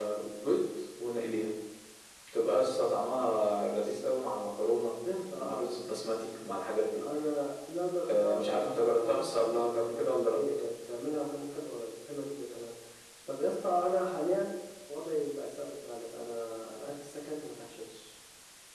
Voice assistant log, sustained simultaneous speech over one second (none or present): present